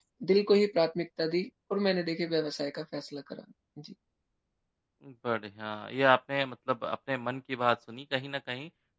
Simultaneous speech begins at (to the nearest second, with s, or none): none